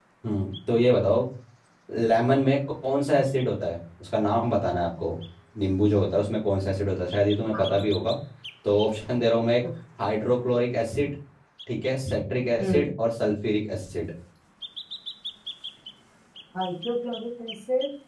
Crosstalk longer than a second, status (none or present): none